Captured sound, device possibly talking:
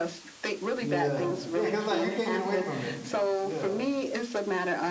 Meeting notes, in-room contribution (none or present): present